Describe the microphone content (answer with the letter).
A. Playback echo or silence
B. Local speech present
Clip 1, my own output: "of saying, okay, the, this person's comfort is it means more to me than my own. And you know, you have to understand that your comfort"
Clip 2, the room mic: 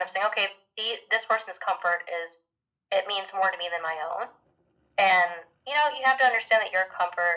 A